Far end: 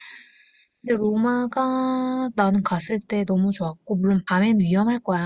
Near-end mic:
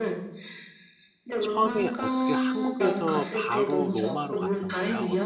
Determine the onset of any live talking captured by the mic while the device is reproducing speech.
1.4 s

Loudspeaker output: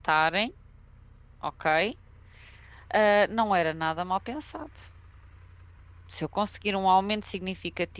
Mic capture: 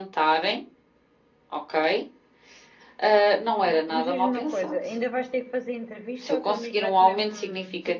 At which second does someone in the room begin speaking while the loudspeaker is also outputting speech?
3.1 s

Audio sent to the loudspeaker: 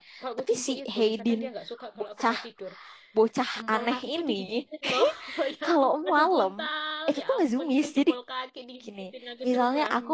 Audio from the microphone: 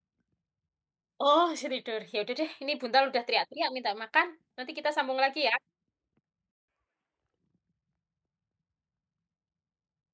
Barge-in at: 1.2 s

